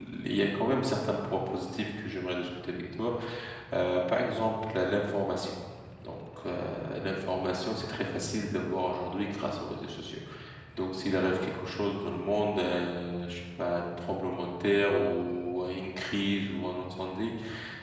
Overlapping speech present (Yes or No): No